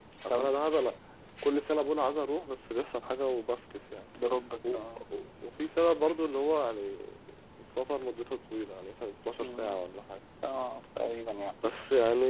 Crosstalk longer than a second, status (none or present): none